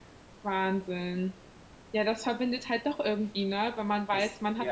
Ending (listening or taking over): listening